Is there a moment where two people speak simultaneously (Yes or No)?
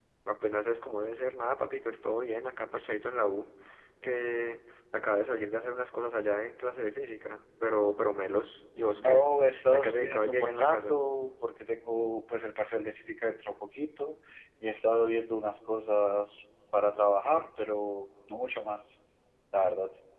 Yes